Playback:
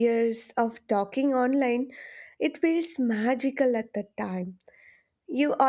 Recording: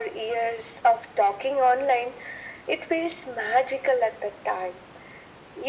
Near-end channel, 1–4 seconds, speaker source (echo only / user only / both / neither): echo only